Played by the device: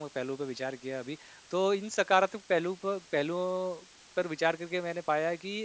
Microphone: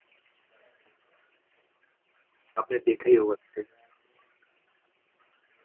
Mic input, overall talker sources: user only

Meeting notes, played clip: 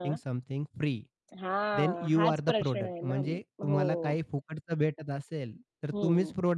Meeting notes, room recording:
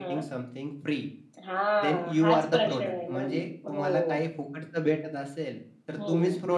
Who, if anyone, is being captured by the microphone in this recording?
echo only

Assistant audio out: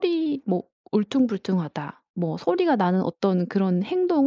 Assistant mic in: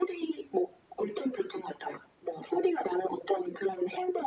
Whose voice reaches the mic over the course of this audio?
echo only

